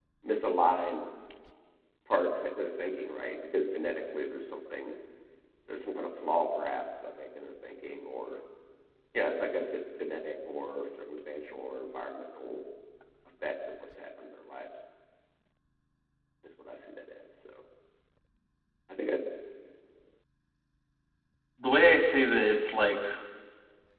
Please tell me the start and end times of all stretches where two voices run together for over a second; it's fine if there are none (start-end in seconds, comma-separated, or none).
none